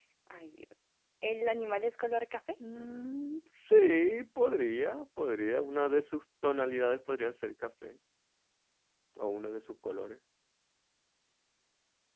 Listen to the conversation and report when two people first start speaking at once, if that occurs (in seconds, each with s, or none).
none